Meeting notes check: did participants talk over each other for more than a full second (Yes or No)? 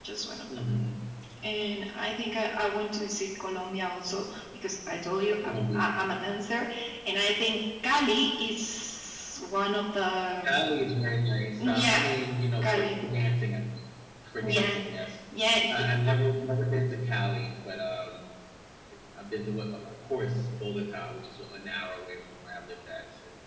No